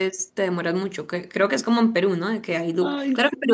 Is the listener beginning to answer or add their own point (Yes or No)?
No